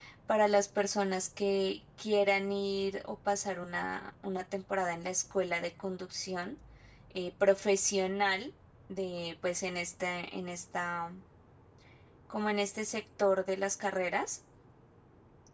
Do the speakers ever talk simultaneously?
No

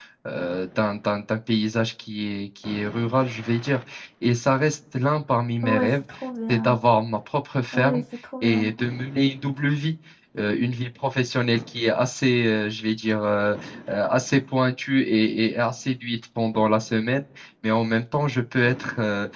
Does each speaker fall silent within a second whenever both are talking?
Yes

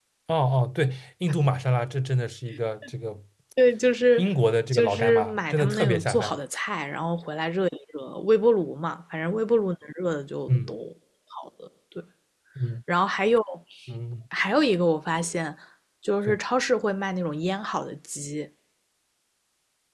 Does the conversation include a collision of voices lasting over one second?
Yes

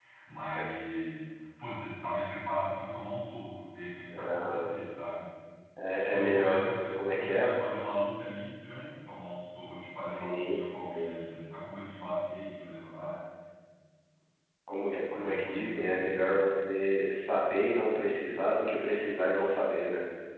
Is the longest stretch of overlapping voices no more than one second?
No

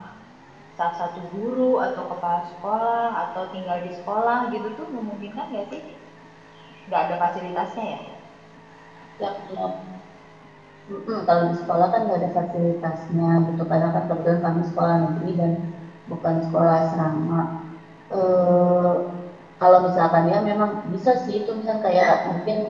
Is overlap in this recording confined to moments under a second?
Yes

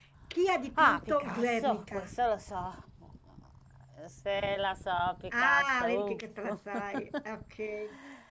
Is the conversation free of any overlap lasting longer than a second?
No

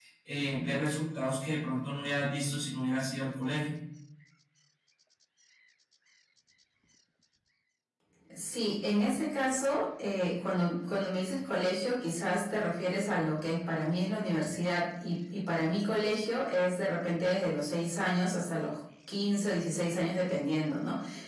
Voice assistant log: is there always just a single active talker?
Yes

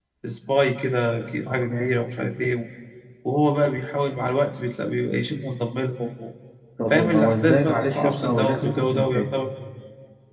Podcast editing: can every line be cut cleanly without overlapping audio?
No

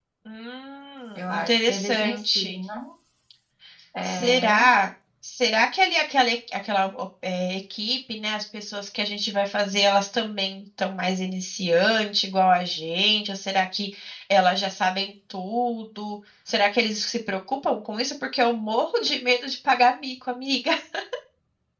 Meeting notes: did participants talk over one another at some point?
Yes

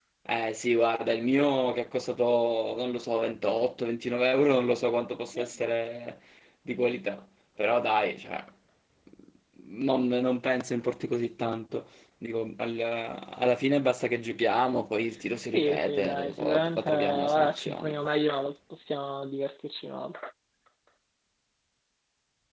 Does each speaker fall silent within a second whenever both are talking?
No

